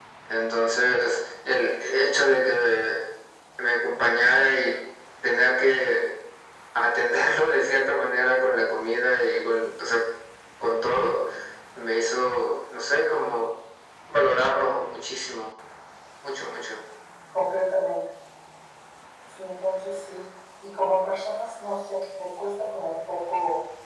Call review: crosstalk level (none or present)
none